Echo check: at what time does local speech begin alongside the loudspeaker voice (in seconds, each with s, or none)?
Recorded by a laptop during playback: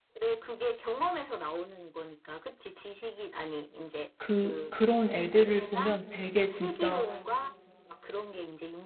4.2 s